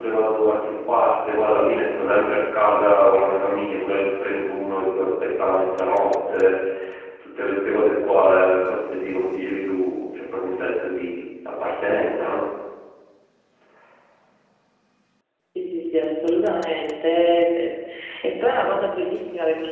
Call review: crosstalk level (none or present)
none